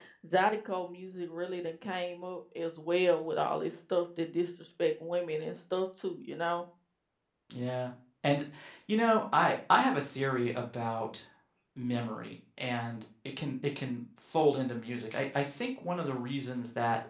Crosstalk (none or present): none